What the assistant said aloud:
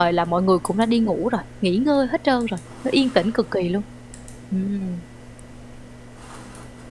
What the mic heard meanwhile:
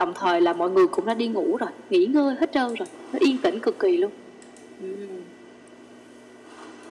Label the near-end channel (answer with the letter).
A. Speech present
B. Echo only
B